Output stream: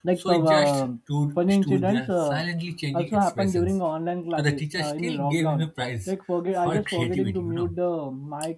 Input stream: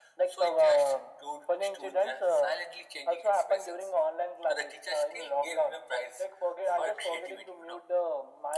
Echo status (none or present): present